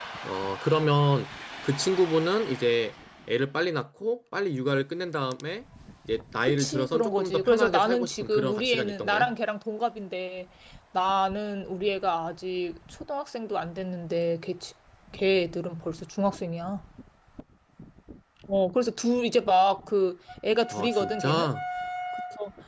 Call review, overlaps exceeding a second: present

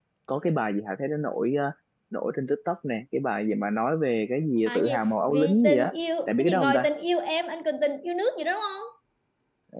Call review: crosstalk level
present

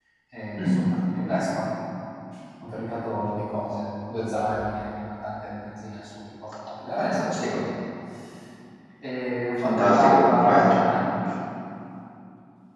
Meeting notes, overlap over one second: present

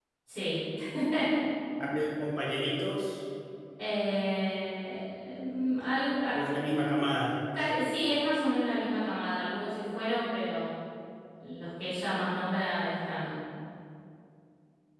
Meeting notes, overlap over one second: none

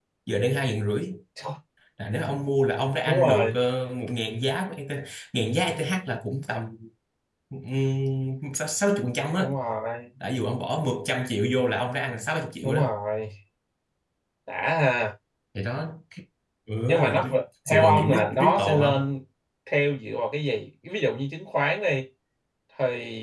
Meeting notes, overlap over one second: present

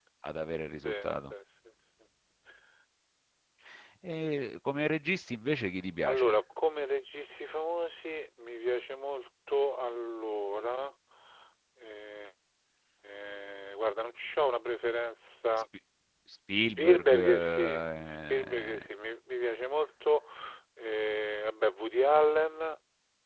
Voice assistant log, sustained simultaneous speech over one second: present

